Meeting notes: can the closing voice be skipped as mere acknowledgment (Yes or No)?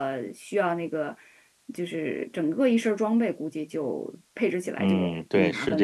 No